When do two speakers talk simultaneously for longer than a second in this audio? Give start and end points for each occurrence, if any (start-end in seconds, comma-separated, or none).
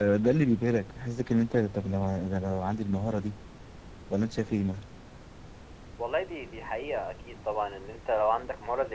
none